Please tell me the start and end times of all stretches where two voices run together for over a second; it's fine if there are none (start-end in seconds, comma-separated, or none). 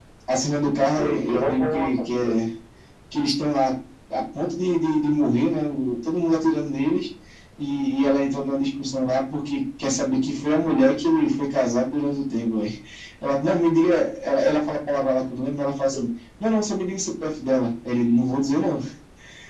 1.0-2.4